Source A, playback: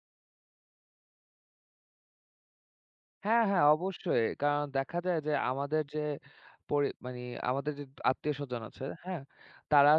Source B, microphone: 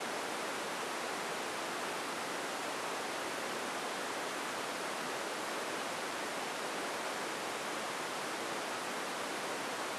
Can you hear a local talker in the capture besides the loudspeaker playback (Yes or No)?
No